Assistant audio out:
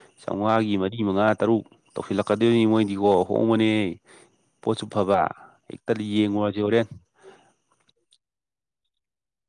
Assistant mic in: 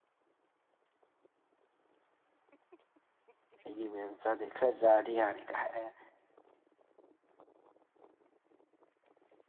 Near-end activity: present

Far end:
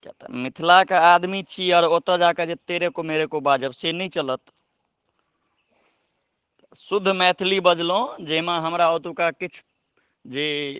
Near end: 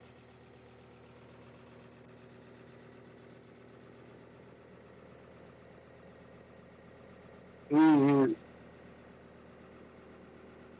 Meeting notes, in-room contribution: present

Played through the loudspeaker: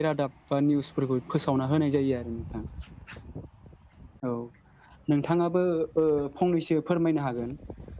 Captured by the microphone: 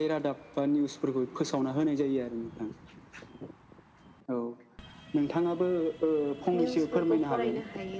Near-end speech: present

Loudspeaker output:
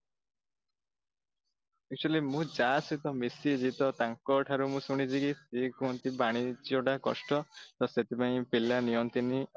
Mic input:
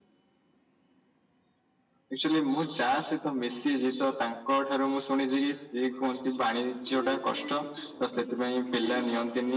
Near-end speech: present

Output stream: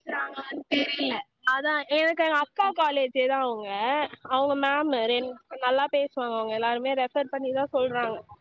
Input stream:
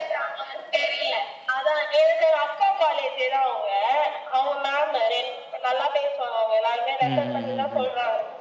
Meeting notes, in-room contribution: present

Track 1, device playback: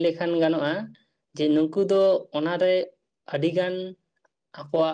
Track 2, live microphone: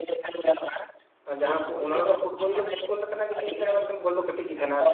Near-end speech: present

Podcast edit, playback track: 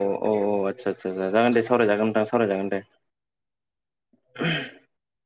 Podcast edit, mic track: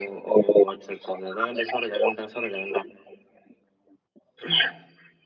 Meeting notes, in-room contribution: none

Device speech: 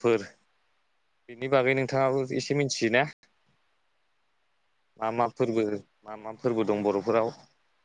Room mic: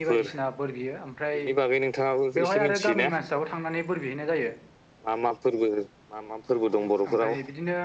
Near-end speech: present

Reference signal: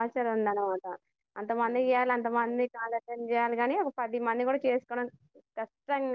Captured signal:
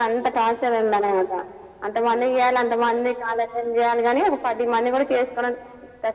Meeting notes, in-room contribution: none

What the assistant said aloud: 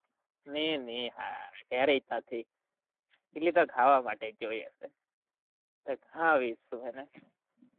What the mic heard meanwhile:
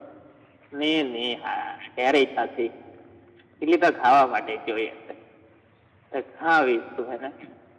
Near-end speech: none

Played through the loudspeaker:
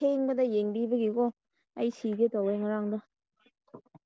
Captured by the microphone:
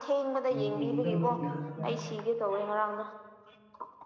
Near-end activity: present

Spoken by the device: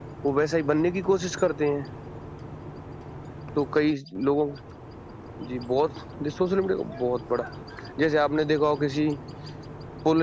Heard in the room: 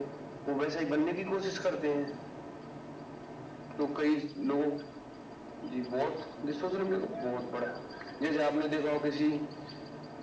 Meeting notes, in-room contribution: none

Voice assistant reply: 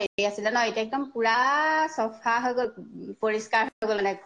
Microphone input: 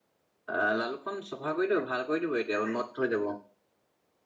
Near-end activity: present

